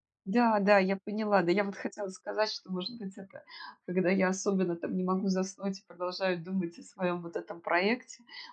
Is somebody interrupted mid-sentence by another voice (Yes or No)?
No